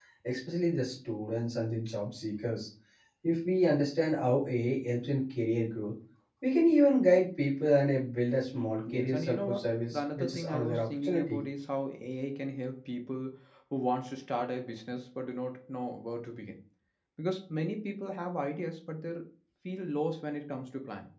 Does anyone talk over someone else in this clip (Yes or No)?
Yes